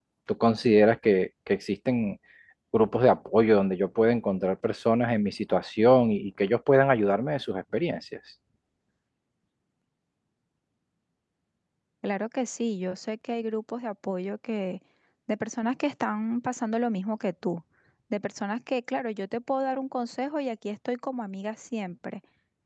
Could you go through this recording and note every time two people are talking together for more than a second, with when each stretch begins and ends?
none

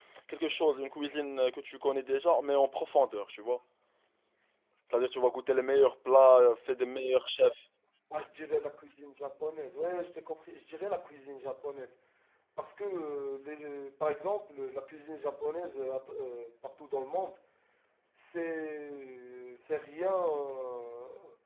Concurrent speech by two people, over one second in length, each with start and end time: none

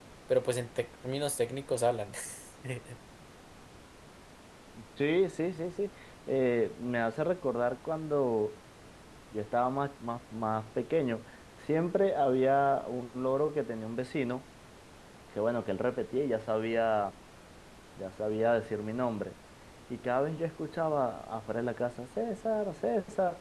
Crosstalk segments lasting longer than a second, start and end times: none

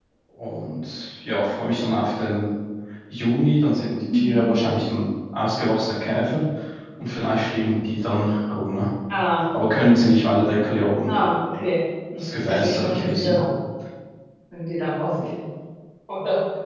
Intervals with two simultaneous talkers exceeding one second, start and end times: 12.2-13.4

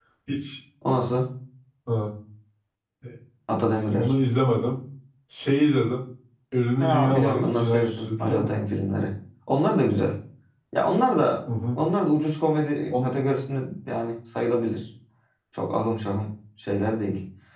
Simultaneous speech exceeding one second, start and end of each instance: 6.8-8.6

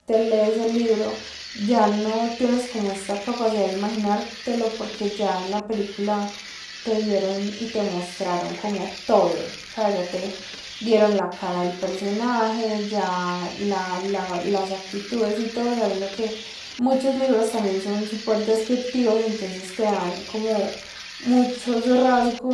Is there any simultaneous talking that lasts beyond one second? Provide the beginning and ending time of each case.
none

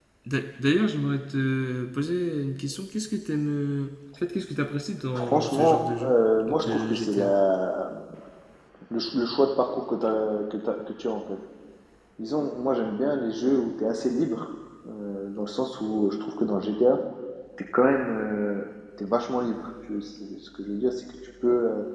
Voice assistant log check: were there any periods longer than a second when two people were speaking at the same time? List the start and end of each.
5.1-7.3

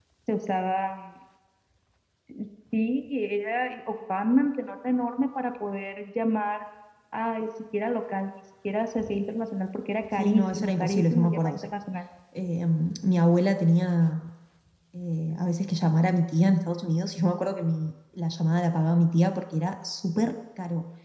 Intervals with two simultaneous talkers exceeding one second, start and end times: 10.1-11.7

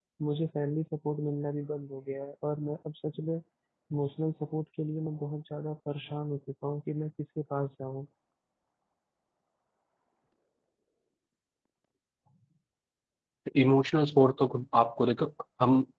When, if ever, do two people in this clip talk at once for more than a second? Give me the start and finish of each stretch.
none

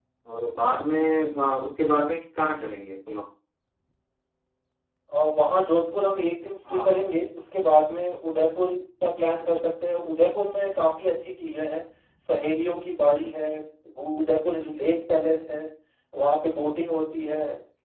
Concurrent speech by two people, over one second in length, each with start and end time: none

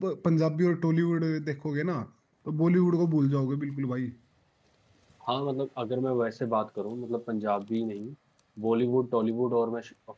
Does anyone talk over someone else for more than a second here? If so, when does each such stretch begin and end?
none

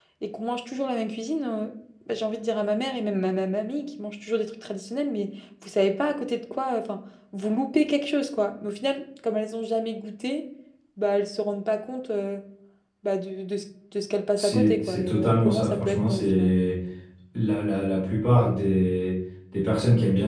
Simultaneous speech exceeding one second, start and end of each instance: 14.4-16.6

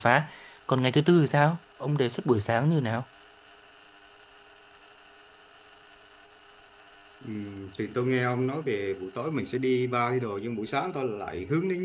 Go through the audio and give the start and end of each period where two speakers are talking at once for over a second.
none

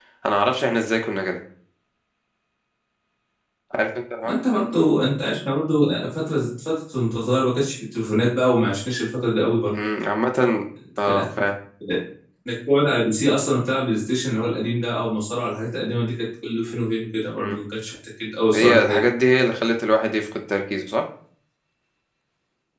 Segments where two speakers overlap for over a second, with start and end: none

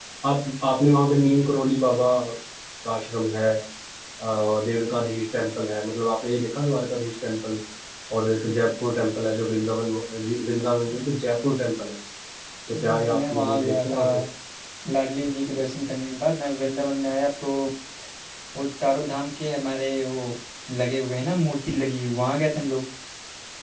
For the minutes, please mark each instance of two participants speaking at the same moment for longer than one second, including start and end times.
12.7-14.0

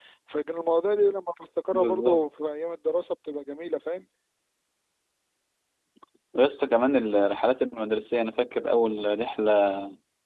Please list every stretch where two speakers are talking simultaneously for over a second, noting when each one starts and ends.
none

